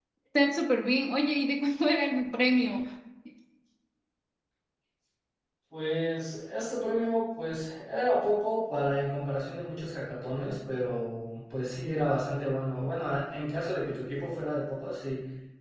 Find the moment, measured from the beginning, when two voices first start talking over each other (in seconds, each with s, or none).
none